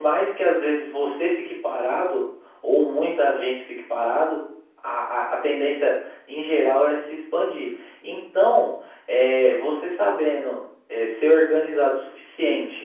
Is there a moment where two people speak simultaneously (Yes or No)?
No